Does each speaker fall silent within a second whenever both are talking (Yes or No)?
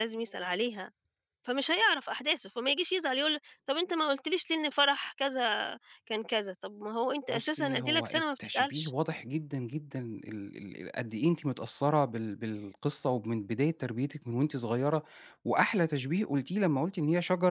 No